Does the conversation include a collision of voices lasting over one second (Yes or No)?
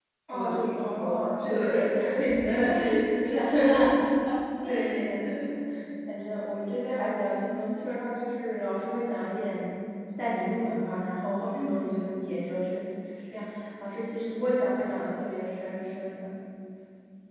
Yes